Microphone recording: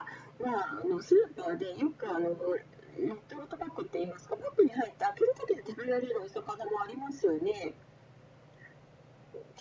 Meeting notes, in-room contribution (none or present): none